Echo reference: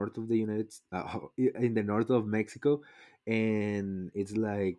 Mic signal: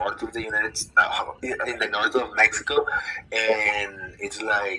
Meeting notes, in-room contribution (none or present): none